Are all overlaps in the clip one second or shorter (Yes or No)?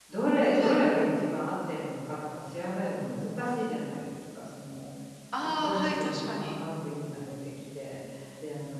No